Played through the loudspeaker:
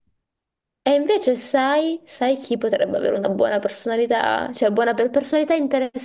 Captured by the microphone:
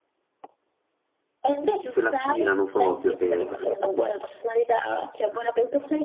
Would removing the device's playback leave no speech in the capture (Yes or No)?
No